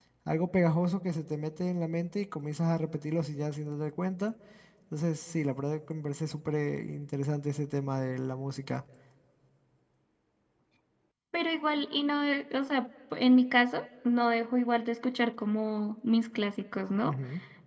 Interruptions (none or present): none